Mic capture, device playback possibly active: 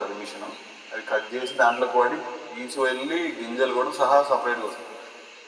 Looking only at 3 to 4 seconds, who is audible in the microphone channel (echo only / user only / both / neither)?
echo only